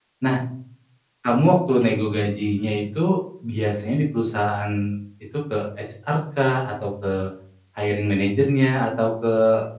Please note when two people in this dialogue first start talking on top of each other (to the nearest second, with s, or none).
none